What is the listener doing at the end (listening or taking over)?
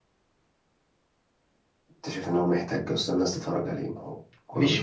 taking over